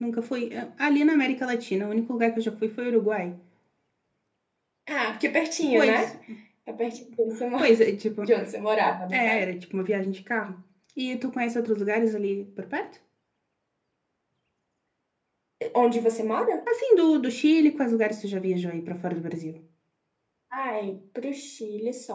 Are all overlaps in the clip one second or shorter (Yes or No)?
Yes